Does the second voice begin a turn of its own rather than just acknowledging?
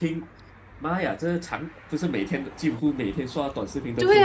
Yes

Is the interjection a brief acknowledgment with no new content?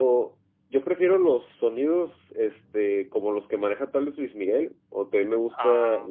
Yes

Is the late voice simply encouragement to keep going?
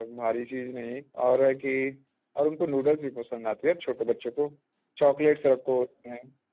Yes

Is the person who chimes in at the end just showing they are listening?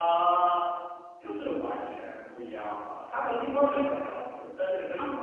Yes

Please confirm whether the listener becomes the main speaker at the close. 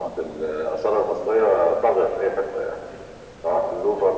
No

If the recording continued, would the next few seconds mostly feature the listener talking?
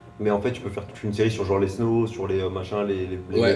Yes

